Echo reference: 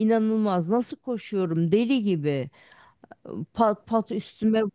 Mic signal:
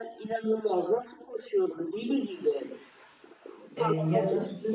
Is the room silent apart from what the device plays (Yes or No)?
No